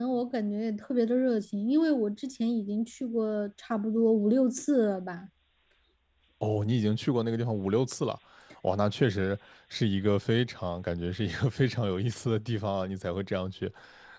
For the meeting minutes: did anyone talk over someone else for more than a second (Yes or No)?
No